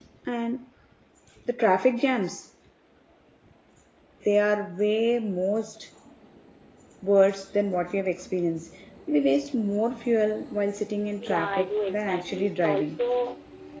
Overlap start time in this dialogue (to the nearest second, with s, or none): 11 s